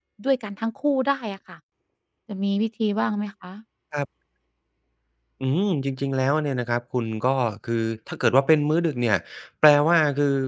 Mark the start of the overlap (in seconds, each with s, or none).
none